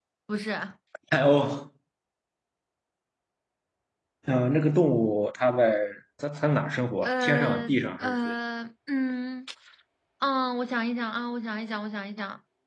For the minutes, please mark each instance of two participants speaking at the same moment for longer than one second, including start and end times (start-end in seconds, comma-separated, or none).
7.0-8.3